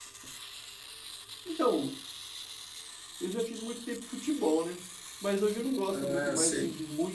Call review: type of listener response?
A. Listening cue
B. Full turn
A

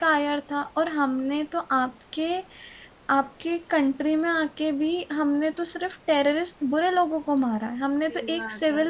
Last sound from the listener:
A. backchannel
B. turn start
A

